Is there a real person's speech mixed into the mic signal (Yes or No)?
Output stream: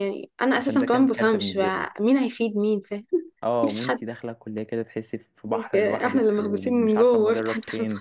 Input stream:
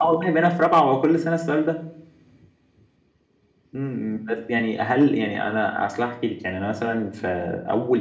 Yes